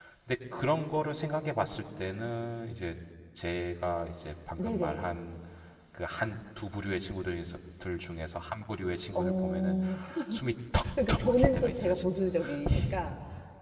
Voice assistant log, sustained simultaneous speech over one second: present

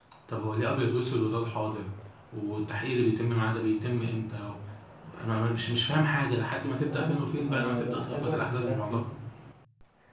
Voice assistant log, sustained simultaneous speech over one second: present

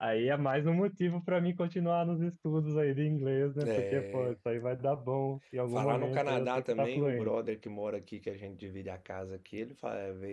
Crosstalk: present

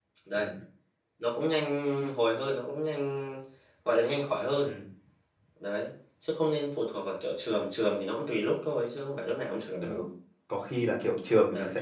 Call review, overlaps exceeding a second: none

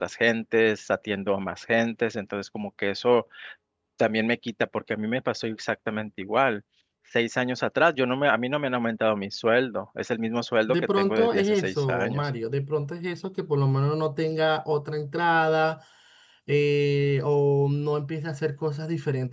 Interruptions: present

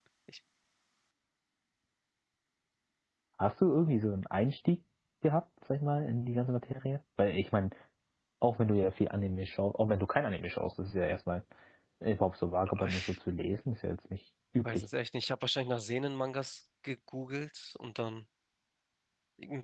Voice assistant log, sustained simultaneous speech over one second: none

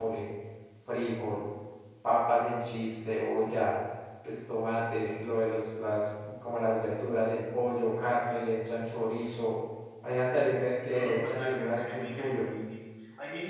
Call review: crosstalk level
present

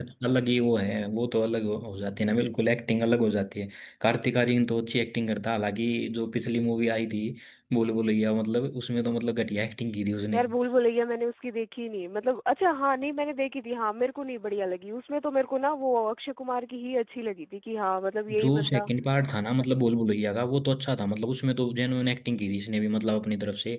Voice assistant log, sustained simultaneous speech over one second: none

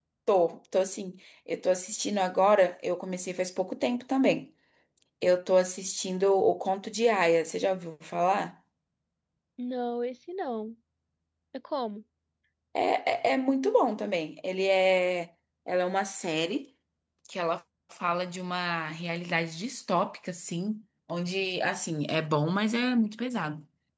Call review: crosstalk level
none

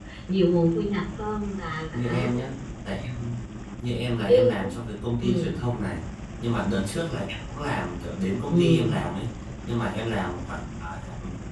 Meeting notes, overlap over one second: none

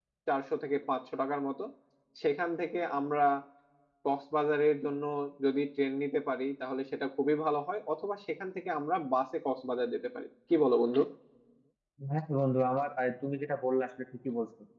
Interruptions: none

